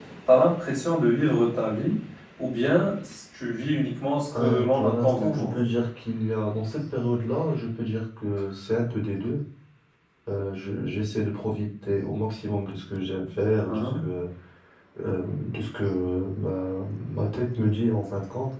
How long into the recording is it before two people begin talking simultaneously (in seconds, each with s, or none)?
4.3 s